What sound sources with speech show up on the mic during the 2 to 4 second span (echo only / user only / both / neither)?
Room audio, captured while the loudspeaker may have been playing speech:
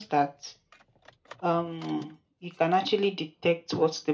echo only